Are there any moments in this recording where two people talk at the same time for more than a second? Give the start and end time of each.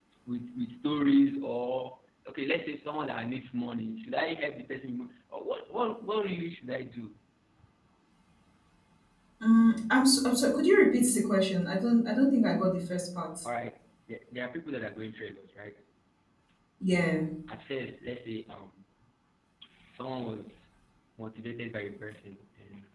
none

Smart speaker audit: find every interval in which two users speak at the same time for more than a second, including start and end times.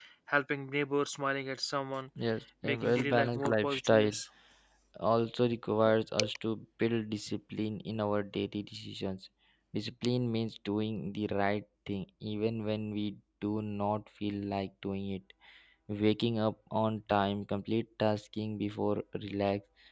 2.6-4.1

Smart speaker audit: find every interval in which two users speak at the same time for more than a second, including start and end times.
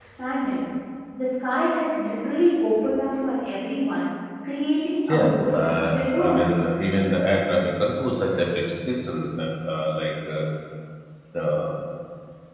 5.1-6.4

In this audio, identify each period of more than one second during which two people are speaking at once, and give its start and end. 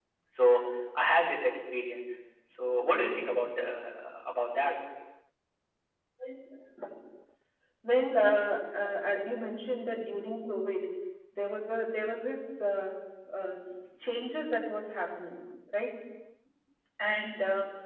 none

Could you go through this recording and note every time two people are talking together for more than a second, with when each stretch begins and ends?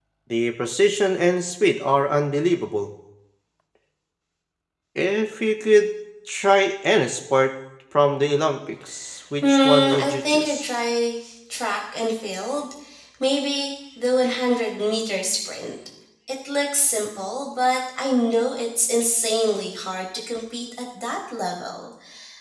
9.4-10.7

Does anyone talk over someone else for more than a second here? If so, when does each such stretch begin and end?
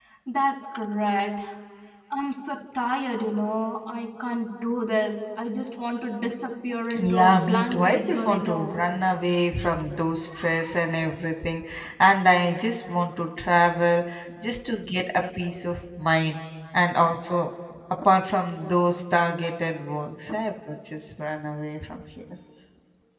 7.0-8.8

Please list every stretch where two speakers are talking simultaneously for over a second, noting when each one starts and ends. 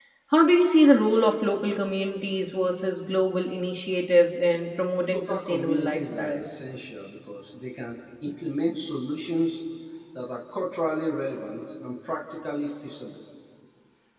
5.1-6.5

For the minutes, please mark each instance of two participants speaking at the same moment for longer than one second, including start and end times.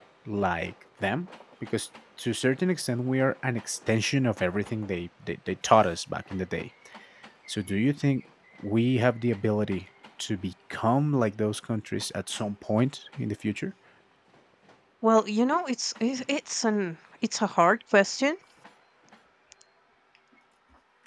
none

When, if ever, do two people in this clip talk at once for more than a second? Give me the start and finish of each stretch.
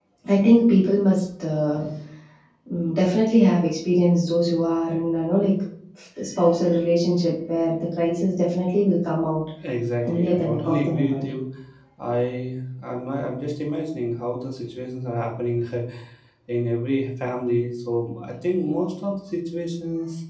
10.1-11.3

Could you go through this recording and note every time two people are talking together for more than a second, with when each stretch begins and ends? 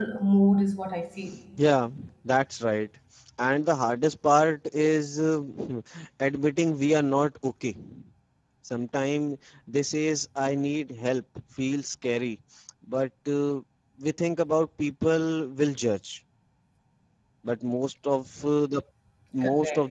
none

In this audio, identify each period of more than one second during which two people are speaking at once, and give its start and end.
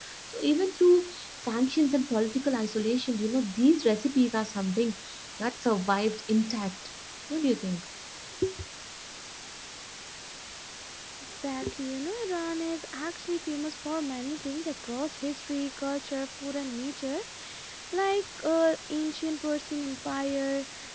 none

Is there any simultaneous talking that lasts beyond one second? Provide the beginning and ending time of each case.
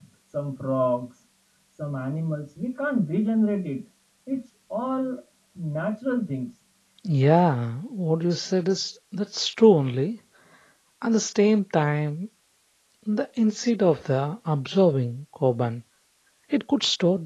none

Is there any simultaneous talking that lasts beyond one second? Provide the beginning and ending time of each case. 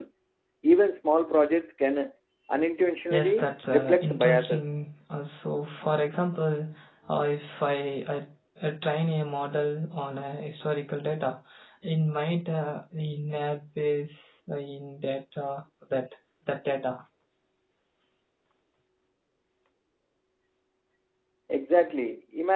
3.1-4.7

